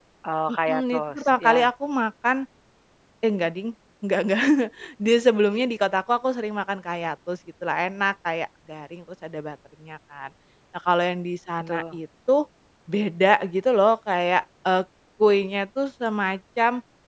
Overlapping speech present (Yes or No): Yes